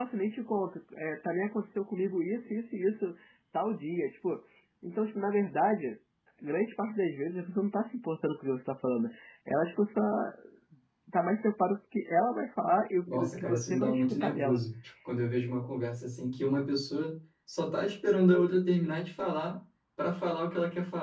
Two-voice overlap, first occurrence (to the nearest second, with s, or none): 13 s